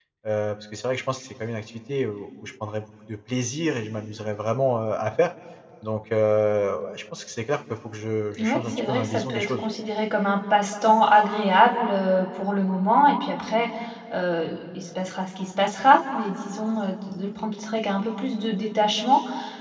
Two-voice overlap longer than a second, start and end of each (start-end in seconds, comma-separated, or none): 8.4-9.6